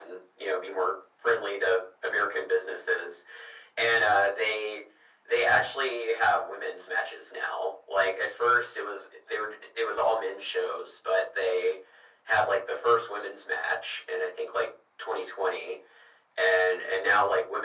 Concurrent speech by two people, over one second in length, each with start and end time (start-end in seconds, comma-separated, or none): none